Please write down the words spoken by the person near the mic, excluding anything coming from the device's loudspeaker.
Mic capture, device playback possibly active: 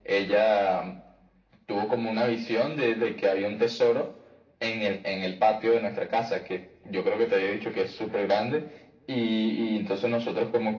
none

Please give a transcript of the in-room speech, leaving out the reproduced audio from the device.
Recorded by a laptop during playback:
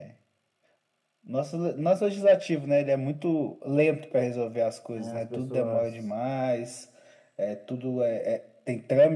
né? As pessoas

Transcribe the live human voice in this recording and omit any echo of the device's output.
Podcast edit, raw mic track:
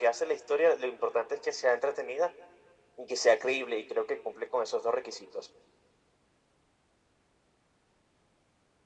none

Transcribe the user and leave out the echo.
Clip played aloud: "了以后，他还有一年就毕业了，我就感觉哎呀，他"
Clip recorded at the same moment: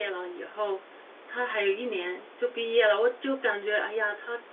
none

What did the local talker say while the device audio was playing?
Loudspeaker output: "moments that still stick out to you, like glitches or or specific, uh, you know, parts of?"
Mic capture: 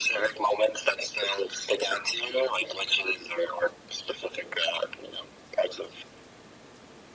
none

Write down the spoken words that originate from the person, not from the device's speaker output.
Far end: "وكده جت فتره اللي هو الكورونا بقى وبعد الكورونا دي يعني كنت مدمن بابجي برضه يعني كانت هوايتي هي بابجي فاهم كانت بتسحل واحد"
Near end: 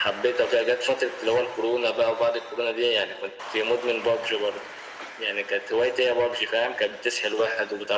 none

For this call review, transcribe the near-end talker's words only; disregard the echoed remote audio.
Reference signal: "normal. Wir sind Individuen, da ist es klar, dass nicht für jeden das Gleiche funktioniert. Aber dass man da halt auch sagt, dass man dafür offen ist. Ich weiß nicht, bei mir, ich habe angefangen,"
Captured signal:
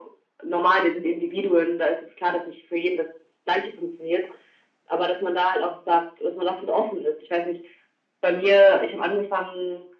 none

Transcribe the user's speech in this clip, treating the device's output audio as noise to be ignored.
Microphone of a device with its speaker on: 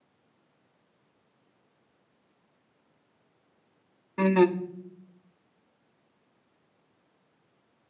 ừ.

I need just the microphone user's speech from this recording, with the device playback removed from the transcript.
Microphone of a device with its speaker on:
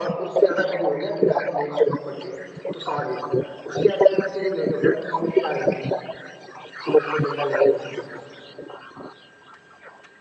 none

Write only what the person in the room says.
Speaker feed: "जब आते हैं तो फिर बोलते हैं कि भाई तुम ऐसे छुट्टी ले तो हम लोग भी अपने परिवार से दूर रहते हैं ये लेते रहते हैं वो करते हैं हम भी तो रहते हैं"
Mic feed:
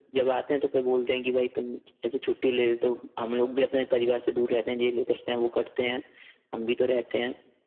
none

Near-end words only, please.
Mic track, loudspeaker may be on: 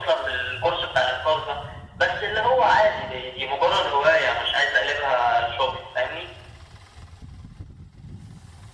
none

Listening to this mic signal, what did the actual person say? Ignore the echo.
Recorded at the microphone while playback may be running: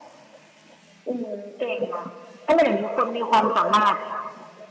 none

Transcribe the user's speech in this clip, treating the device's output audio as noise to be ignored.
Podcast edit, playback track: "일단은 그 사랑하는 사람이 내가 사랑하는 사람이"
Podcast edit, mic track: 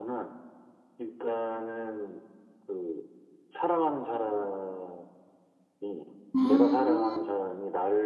음,

